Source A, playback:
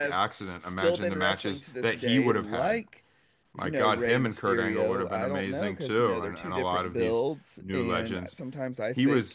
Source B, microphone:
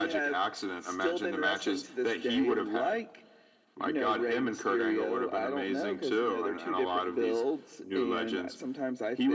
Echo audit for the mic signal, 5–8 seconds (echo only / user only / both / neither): echo only